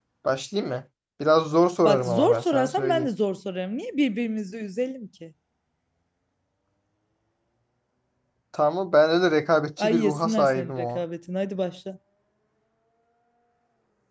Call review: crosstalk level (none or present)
present